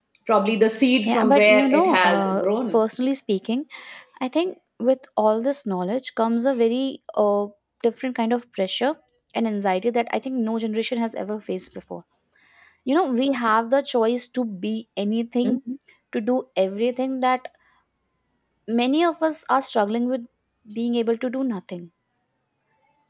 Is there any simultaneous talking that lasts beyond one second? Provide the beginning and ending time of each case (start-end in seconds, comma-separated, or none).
1.1-2.8